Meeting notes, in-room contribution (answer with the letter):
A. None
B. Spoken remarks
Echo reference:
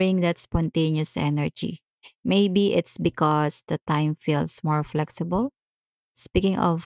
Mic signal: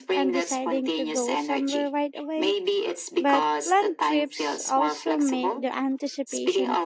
B